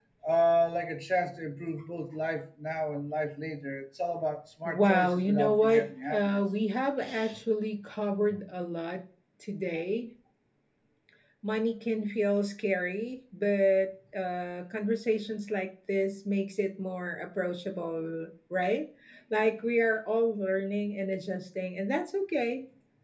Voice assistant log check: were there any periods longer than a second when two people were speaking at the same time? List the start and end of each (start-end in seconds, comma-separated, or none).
4.6-6.4